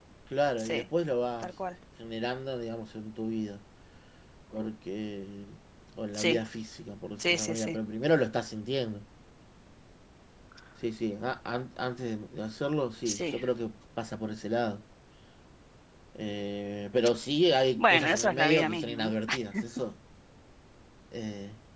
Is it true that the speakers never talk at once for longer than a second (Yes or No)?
No